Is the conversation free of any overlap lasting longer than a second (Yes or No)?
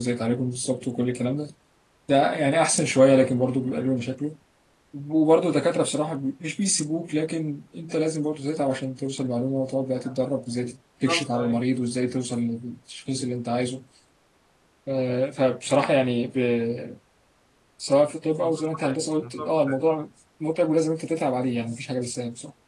No